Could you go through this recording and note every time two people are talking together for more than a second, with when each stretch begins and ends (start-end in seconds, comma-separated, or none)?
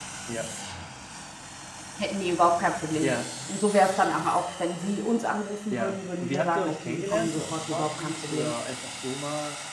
5.7-8.5